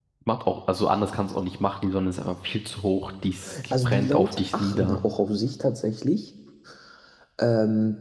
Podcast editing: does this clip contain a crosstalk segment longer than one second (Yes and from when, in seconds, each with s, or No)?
Yes, from 3.7 s